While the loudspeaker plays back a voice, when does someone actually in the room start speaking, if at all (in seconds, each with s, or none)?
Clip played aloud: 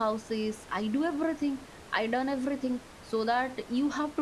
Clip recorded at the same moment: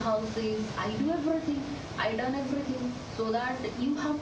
none